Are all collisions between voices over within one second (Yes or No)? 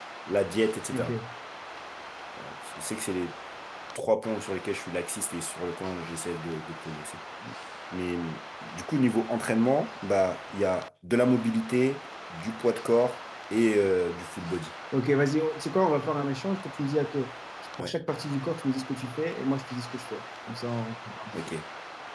Yes